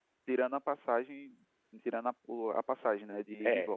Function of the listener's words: taking over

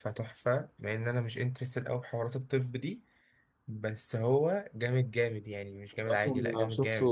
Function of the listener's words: taking over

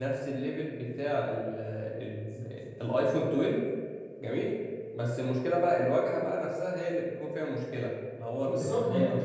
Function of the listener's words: taking over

